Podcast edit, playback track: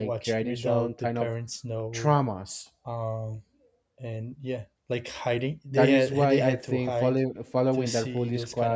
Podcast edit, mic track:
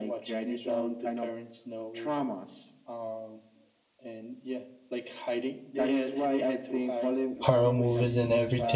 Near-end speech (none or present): present